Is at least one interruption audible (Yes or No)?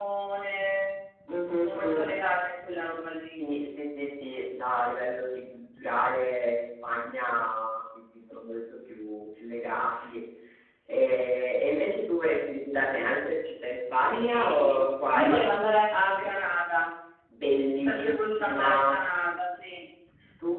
Yes